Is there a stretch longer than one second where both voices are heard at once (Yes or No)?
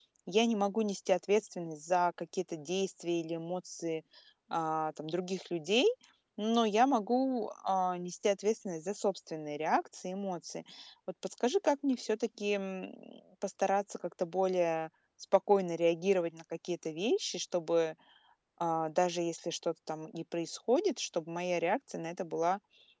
No